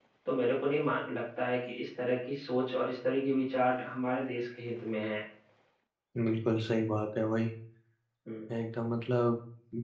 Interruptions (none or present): none